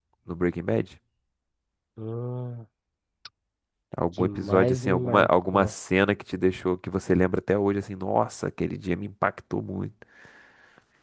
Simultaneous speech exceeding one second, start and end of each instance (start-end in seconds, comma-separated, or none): 4.2-5.7